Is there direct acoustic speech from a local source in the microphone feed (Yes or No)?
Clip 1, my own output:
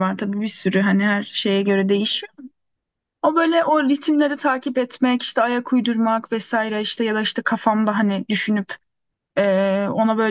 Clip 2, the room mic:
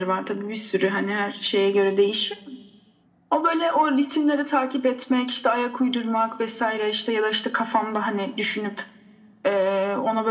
No